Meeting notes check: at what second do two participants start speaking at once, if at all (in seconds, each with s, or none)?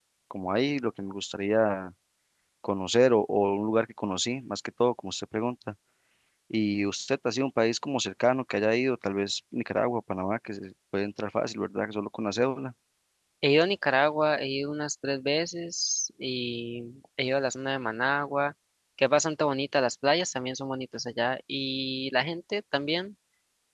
none